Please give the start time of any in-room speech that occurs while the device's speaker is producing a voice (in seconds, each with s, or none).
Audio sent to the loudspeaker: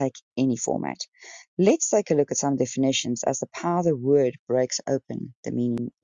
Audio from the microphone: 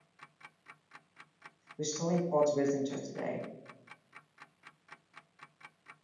1.8 s